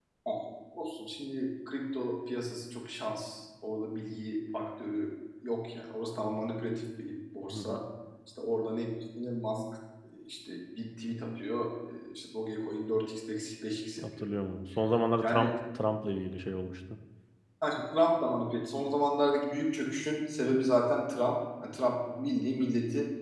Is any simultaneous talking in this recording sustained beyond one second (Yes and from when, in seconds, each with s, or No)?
No